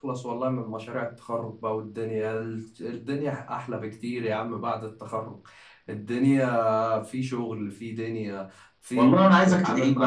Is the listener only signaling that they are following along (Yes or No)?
No